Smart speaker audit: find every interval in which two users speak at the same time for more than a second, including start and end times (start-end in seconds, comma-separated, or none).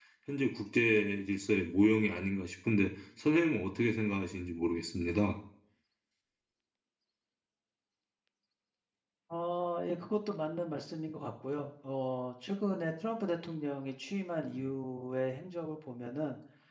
none